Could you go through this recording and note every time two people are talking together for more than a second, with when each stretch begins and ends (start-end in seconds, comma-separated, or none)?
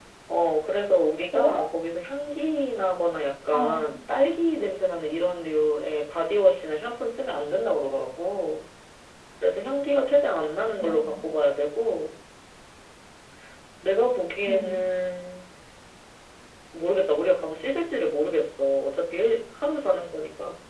none